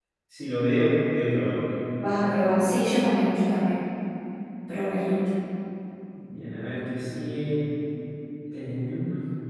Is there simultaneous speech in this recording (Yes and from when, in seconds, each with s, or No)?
No